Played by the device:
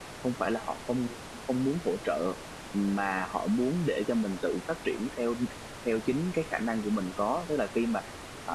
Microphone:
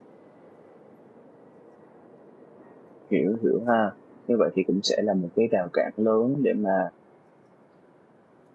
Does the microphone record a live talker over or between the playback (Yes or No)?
Yes